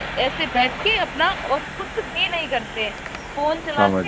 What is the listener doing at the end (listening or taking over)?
listening